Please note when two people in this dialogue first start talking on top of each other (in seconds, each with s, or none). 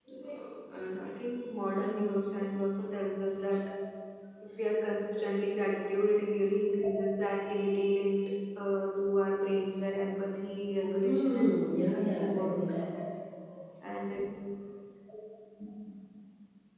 11.0 s